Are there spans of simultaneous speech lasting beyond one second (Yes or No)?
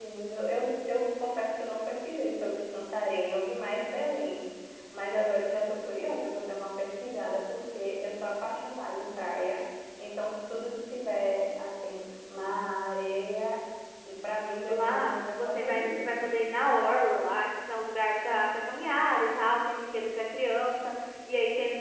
Yes